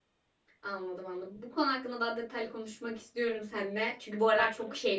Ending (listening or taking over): listening